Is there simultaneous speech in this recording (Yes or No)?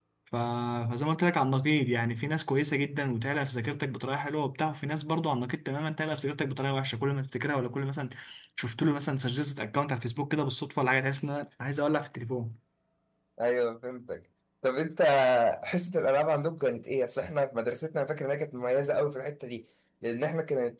No